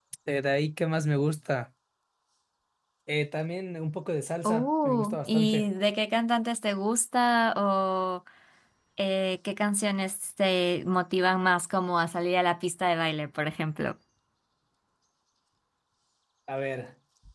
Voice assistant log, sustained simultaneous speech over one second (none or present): present